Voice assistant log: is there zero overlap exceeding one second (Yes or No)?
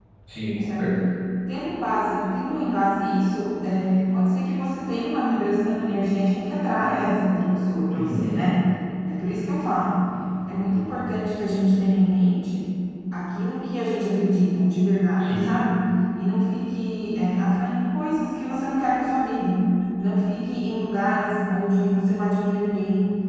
Yes